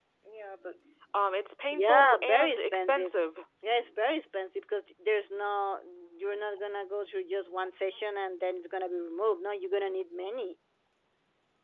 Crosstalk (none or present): present